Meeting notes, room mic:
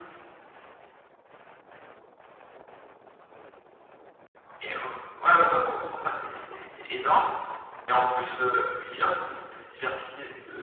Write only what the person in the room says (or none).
none